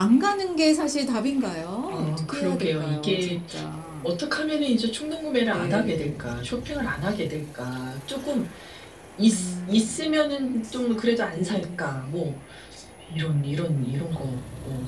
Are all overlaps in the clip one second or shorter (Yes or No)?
No